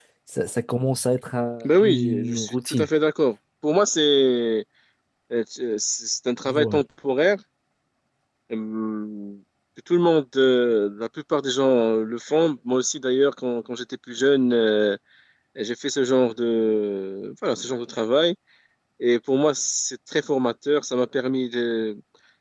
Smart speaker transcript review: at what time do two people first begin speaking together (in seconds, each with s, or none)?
1.6 s